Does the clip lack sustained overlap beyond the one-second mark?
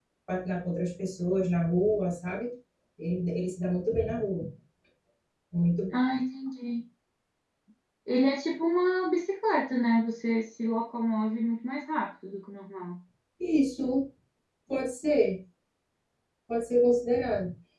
Yes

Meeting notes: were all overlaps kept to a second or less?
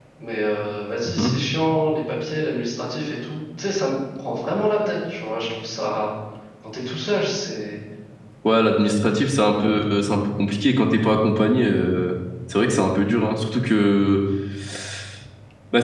Yes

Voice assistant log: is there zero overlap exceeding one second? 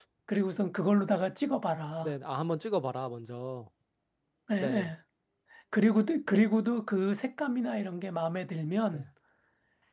Yes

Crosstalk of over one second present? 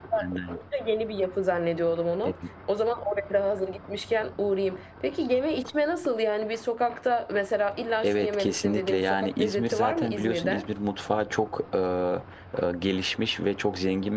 Yes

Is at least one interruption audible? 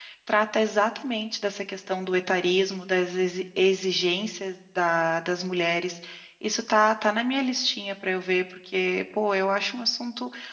No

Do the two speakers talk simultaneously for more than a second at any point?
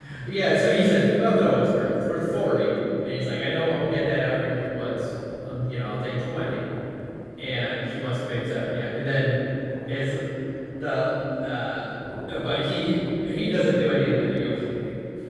No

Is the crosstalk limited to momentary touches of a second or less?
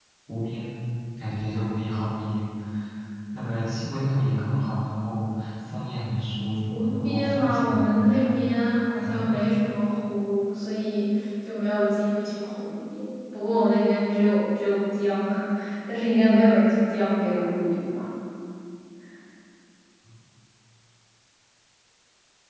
No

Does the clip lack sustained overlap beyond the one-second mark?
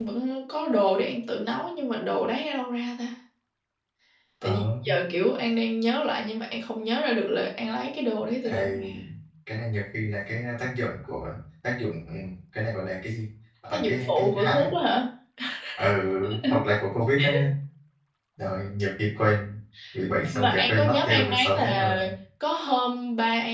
No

